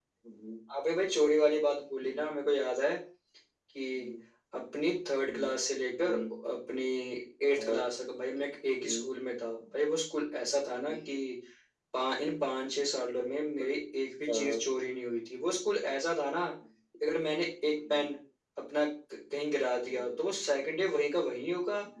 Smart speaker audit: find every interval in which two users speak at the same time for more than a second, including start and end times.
none

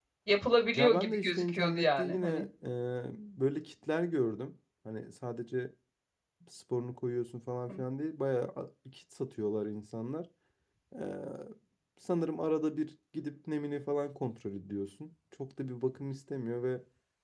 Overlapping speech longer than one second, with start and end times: 0.8-2.3

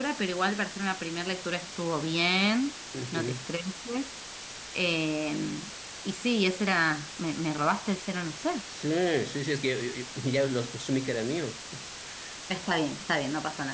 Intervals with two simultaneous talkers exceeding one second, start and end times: none

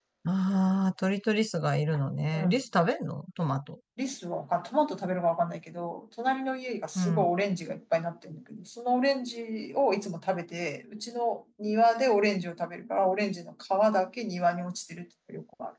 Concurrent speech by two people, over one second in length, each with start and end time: none

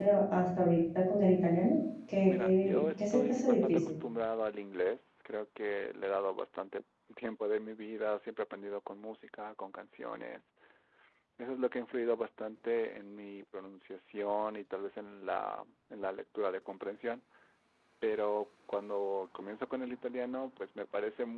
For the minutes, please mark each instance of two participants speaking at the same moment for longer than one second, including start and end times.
2.3-3.8

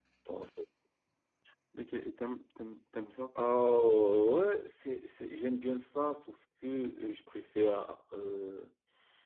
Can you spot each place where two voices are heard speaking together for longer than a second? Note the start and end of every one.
none

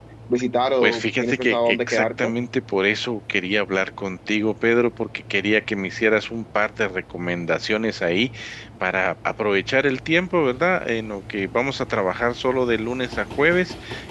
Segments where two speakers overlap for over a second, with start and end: 0.8-2.3

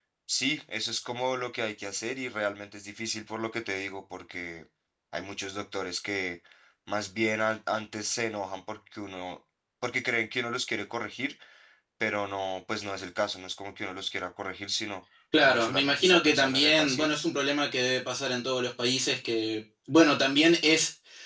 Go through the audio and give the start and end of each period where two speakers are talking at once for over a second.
15.4-17.1

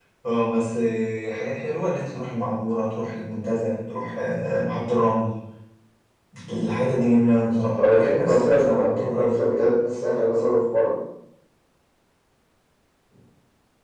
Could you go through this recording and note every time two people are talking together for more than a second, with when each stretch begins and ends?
7.8-9.3

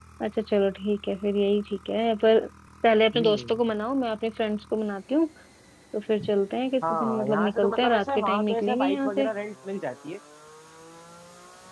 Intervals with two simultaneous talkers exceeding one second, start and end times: 6.9-9.2

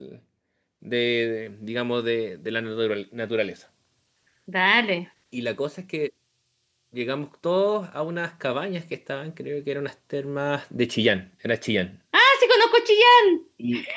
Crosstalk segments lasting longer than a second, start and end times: none

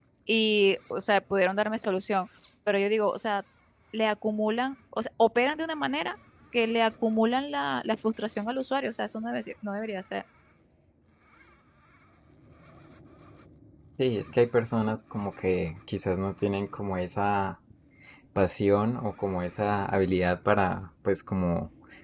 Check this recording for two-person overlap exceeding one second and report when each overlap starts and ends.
none

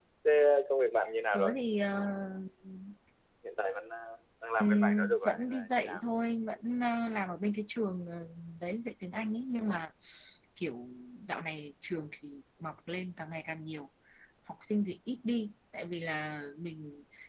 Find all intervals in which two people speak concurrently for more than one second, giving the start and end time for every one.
4.6-6.0

